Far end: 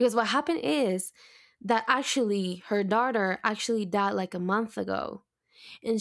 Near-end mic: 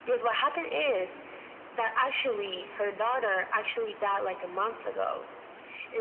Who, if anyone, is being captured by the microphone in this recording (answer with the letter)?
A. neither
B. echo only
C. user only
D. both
B